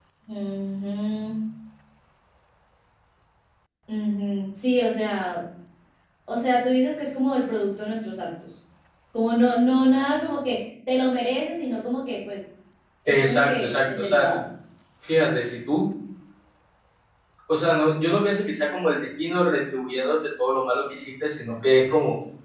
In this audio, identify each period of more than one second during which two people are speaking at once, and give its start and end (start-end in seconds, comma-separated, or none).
13.1-14.3